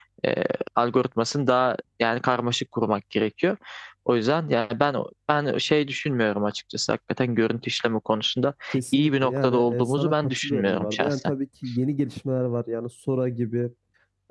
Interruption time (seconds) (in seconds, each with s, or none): 8.9 s